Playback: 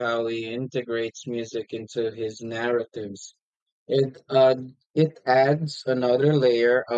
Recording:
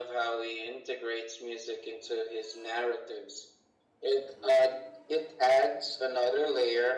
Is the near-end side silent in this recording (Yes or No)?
Yes